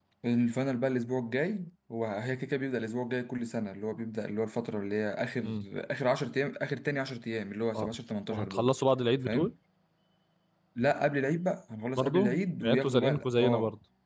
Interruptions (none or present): present